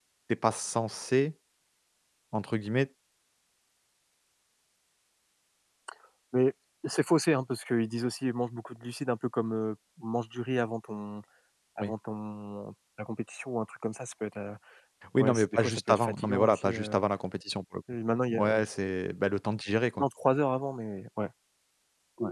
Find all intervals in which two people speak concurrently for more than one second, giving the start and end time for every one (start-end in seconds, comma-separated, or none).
15.2-17.0